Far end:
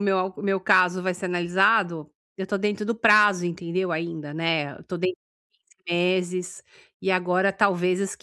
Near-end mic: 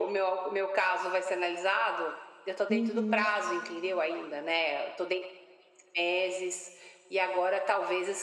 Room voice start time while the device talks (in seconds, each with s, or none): 2.7 s